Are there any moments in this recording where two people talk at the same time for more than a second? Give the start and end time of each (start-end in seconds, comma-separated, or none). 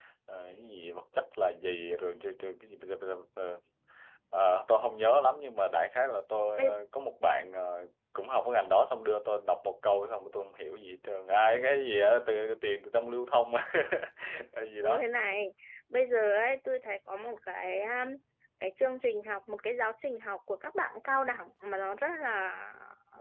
none